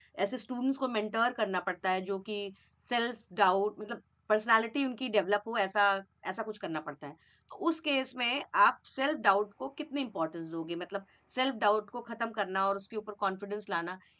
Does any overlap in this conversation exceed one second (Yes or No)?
No